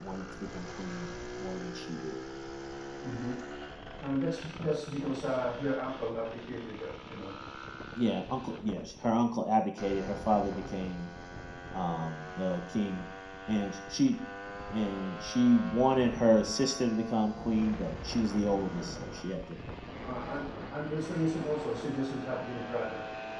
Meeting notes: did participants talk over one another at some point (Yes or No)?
No